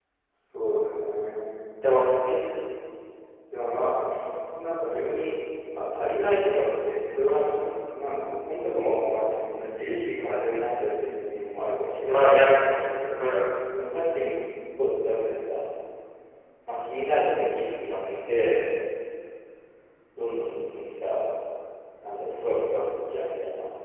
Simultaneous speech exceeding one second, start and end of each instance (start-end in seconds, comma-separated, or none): none